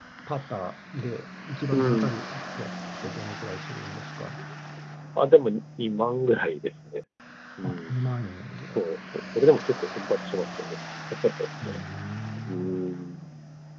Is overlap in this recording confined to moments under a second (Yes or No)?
Yes